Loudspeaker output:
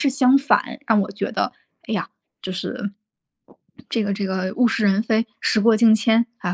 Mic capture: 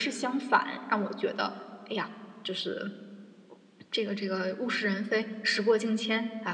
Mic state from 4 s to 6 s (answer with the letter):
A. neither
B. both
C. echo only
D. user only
C